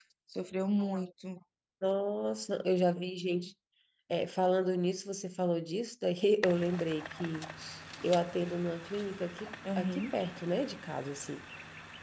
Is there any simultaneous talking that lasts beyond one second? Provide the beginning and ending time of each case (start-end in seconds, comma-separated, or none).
none